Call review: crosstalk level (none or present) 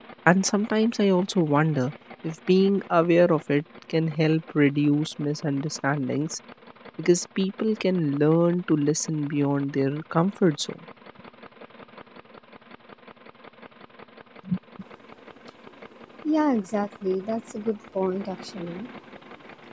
none